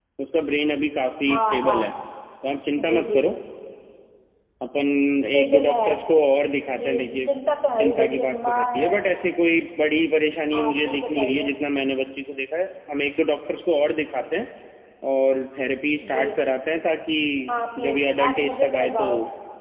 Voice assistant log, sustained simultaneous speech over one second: present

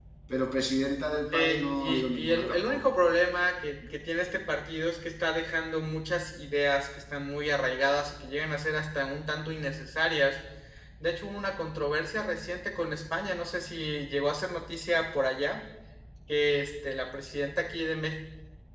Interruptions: present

